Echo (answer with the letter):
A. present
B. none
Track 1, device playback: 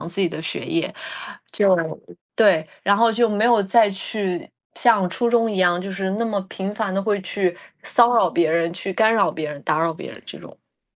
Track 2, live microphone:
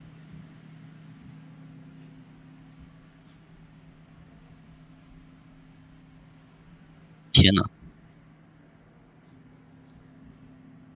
B